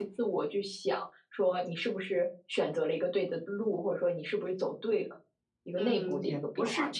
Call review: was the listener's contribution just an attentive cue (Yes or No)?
No